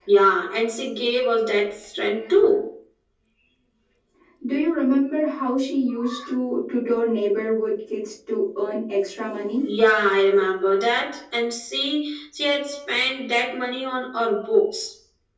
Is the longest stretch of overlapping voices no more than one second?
Yes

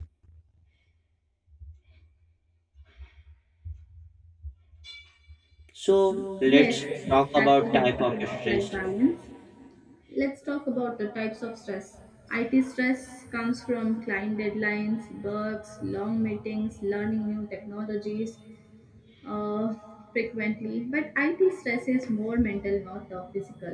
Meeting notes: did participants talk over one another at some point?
Yes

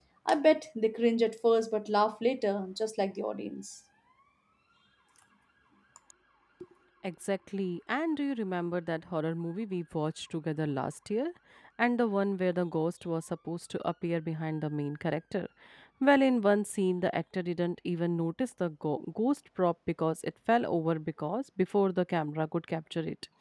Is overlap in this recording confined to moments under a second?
Yes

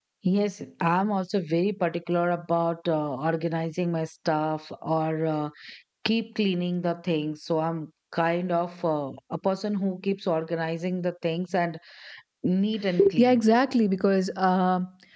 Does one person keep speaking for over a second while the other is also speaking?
No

